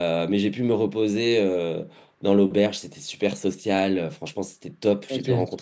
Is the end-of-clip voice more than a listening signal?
No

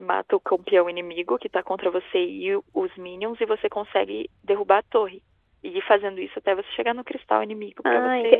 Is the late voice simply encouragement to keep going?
No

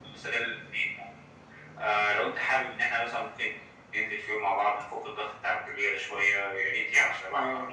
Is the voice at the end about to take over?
Yes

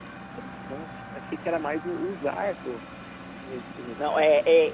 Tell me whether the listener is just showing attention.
No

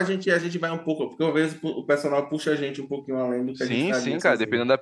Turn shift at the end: Yes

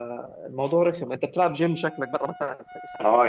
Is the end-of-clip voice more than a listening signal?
Yes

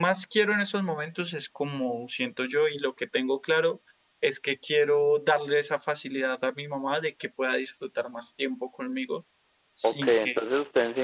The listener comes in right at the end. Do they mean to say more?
Yes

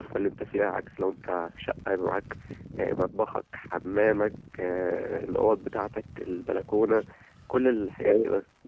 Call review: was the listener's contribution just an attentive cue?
No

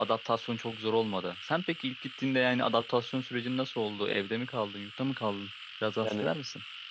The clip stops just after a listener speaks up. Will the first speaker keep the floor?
No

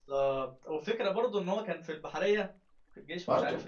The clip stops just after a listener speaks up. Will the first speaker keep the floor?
Yes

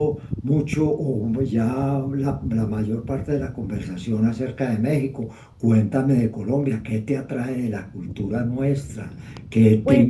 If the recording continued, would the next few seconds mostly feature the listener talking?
No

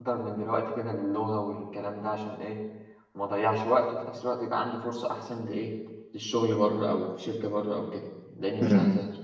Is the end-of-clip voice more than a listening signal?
Yes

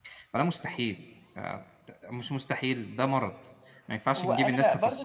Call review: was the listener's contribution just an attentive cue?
No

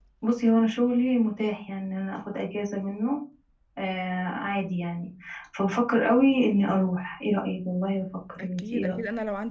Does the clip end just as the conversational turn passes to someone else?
Yes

